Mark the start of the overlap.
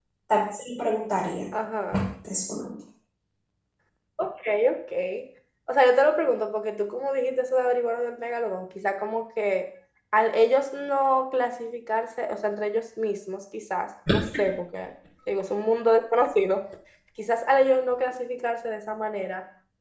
none

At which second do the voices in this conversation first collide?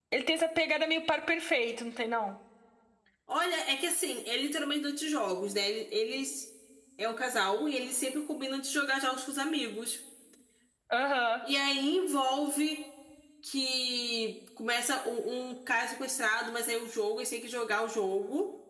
none

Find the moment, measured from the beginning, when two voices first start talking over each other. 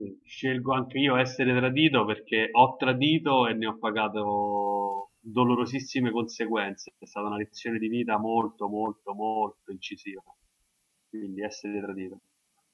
none

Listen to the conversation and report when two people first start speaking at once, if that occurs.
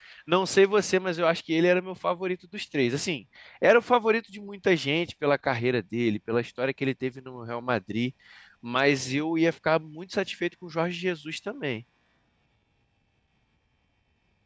none

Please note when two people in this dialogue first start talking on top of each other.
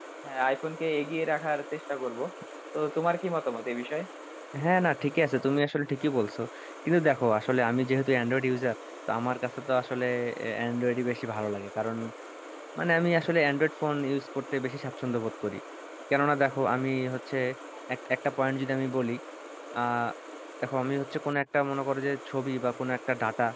none

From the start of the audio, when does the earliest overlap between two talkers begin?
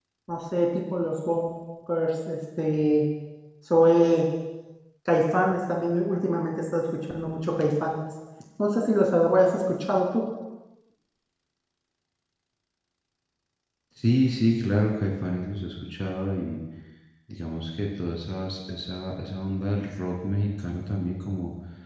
none

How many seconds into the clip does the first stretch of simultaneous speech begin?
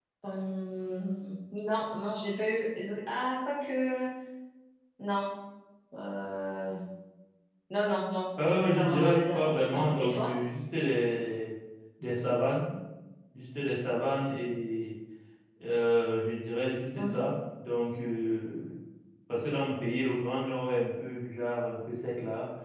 8 s

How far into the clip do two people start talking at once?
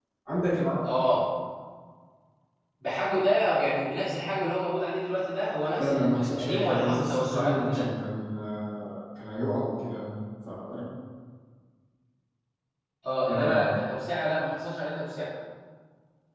6 s

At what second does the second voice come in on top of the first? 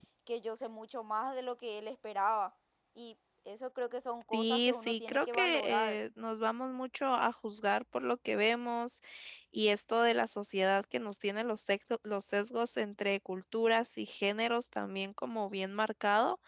4 s

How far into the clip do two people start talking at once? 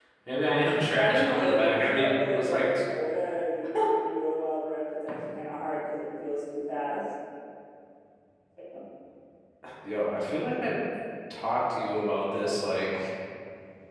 1 s

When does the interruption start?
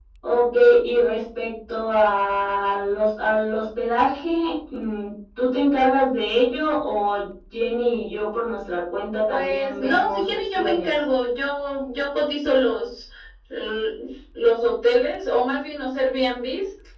9 s

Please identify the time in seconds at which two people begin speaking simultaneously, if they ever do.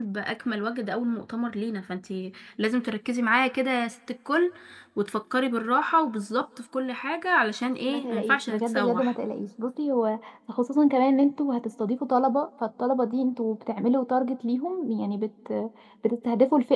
8 s

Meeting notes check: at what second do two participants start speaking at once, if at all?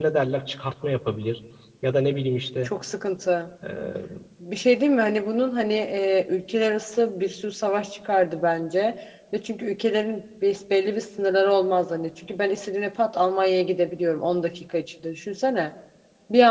none

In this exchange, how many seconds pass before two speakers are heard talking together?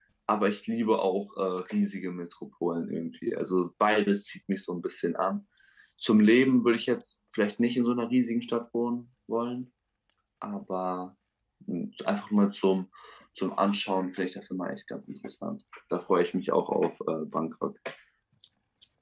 none

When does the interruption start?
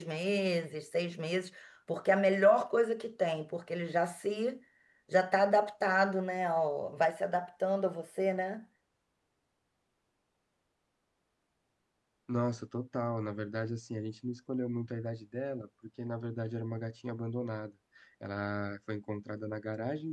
none

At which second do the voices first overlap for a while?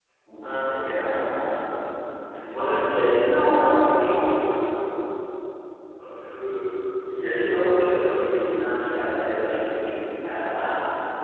2 s

